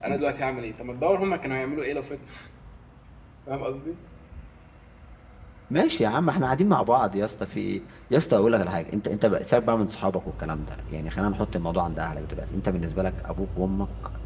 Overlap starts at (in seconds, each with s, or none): none